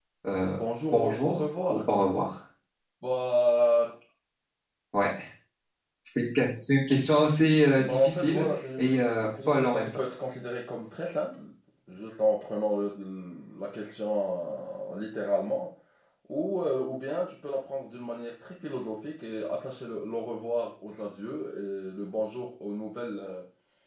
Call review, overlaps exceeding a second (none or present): present